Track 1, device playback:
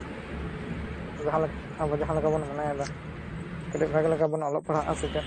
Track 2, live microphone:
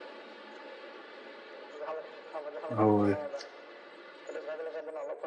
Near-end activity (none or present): present